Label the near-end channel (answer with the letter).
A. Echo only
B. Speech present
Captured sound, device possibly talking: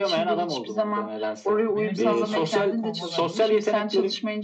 B